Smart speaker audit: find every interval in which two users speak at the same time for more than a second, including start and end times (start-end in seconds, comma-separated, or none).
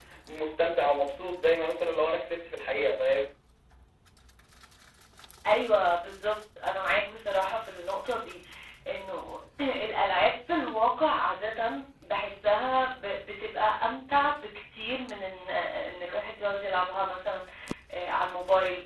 none